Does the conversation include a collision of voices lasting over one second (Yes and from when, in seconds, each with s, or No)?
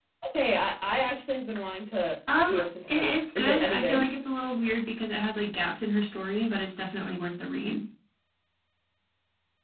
Yes, from 2.3 s